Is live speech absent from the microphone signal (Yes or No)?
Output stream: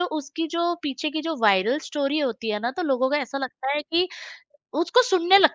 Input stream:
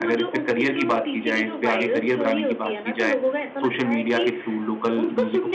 No